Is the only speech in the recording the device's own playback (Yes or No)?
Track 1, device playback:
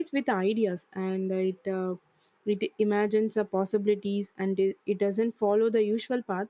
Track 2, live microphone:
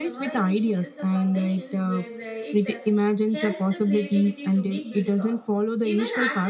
No